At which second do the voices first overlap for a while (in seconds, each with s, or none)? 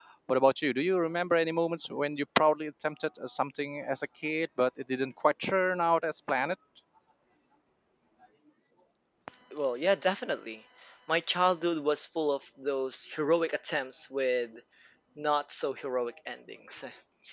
none